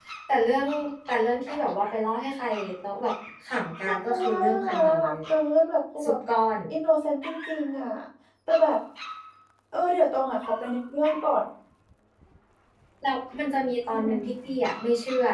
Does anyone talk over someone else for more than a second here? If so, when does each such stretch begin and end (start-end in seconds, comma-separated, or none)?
3.9-5.2